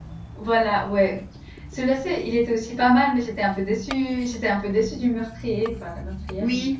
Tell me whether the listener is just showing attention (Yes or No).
No